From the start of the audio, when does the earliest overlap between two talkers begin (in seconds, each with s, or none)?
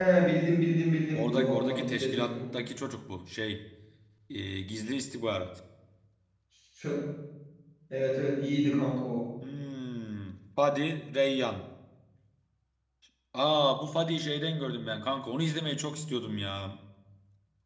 1.1 s